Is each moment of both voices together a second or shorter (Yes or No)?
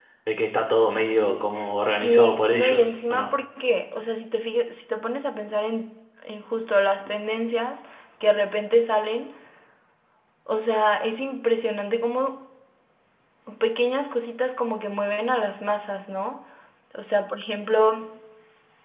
No